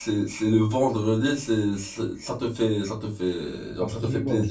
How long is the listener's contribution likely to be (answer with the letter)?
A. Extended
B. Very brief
A